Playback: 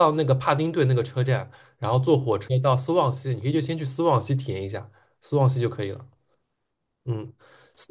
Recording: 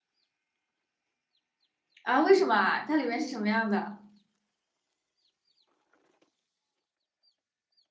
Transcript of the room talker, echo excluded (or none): 啊，为什么啊？它里面是什么样的？